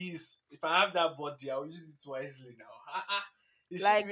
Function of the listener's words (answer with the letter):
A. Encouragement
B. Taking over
A